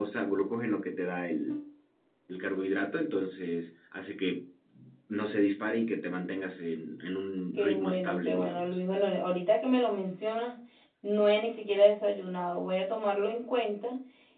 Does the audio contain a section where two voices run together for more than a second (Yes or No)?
Yes